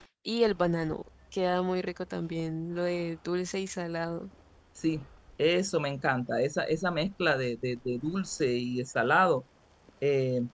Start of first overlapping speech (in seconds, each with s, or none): none